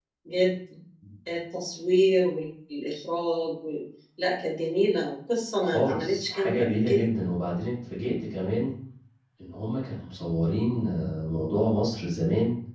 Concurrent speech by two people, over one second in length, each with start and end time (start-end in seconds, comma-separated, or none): 5.6-7.1